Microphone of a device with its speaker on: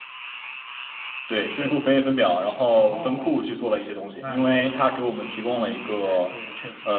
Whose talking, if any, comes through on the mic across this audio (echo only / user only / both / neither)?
echo only